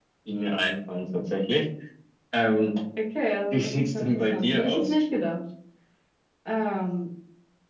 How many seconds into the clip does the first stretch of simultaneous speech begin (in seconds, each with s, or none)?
3.5 s